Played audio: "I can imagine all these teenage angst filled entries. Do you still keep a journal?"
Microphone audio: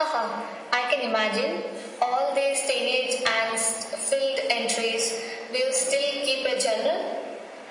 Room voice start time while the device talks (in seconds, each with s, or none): none